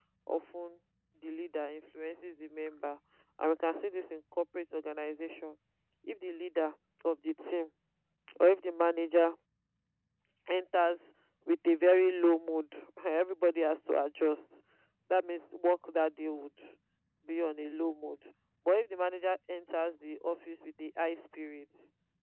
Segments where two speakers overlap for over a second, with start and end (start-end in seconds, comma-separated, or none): none